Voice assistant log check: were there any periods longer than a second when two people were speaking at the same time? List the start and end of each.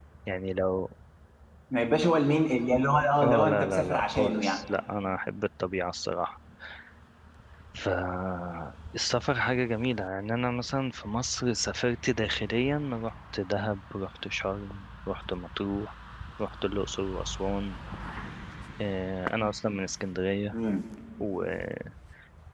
3.2-4.6

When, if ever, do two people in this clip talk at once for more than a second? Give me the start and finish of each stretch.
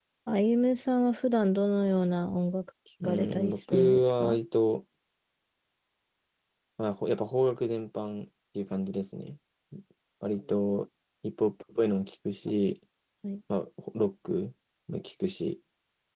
3.0-4.4

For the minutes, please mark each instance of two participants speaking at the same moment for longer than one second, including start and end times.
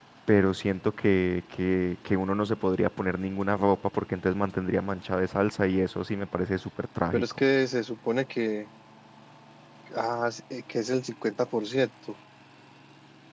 none

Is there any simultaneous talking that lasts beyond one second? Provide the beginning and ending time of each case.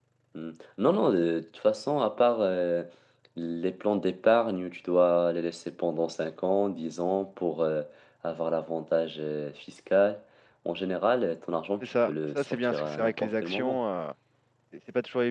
11.8-13.8

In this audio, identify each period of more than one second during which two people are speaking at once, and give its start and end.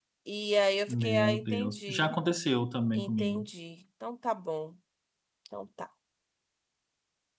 0.9-2.1

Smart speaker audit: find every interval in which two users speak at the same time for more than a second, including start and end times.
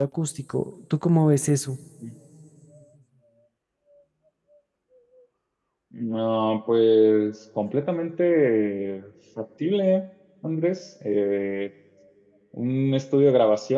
none

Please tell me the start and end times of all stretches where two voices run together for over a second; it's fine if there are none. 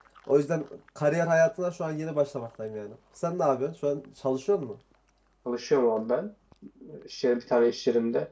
none

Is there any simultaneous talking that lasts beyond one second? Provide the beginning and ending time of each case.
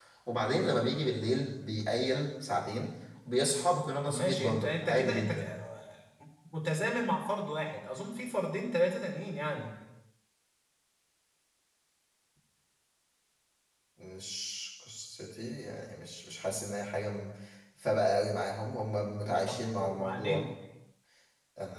4.1-5.5, 19.2-20.4

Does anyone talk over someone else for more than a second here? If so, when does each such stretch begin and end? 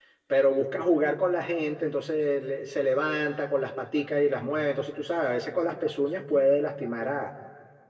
none

